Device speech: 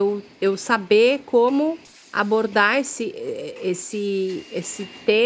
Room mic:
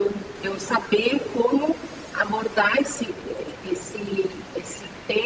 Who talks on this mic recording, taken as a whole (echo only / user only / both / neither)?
echo only